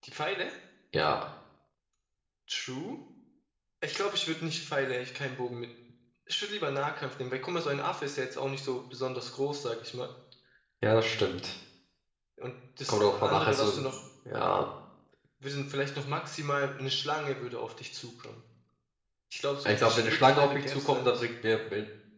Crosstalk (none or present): present